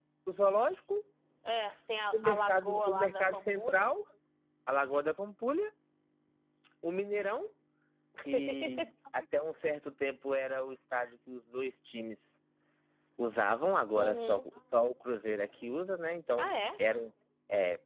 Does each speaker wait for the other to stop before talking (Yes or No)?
No